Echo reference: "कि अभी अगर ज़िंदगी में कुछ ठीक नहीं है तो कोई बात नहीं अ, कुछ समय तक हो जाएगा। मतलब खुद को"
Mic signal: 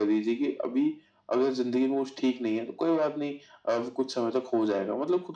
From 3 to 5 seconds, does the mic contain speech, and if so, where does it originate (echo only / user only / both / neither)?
echo only